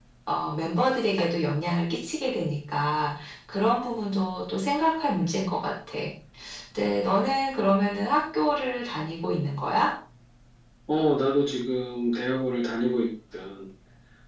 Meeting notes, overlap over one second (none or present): none